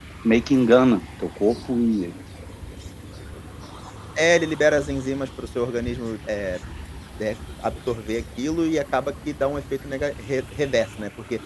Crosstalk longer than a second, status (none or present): none